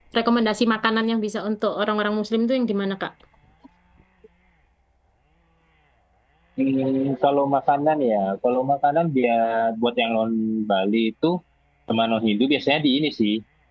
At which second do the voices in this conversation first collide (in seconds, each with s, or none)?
none